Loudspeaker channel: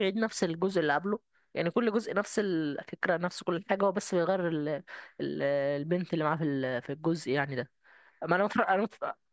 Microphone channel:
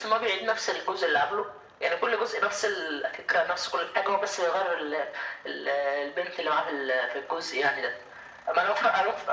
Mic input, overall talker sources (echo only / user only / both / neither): echo only